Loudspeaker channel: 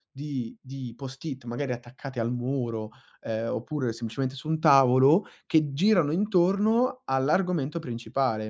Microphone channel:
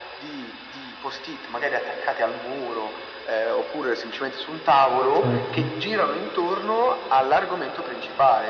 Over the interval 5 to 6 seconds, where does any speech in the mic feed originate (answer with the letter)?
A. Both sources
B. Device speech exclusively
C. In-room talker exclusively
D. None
A